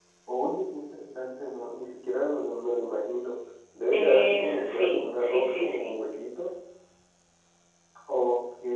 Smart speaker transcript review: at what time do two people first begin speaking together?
3.9 s

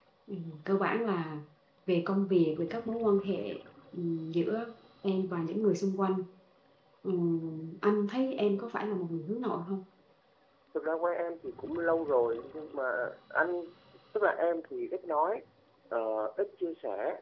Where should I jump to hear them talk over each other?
8.3 s

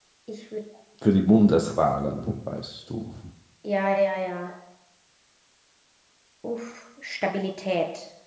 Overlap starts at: none

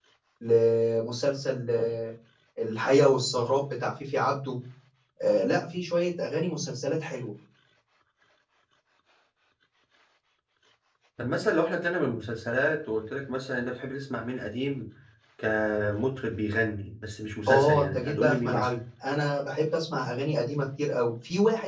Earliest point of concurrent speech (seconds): 17.5 s

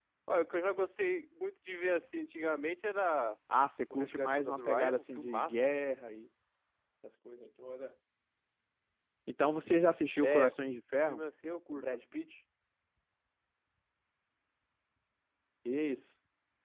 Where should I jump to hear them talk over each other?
3.9 s

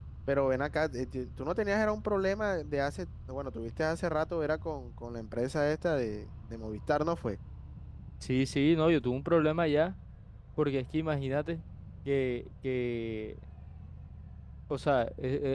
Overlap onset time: none

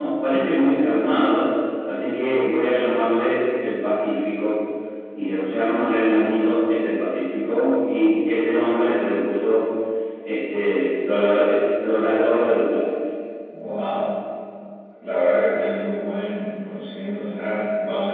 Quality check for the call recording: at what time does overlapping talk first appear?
none

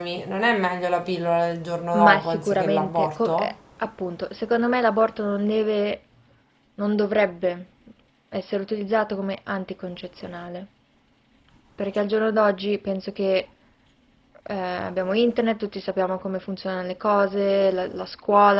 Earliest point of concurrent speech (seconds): 1.9 s

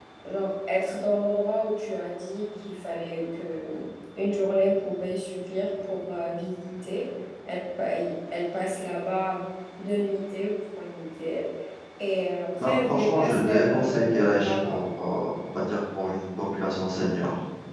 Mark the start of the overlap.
12.6 s

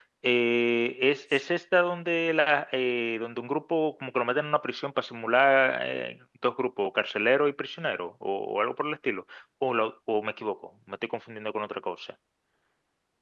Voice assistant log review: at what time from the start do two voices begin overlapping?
none

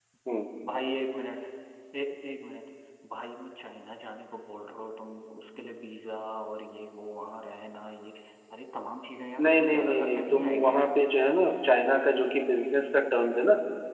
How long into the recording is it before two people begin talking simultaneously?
9.4 s

